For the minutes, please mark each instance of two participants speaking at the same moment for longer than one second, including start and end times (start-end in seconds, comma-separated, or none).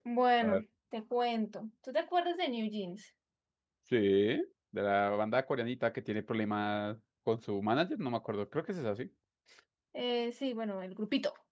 none